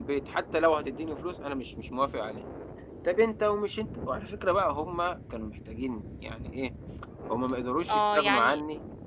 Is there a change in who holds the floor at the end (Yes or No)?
Yes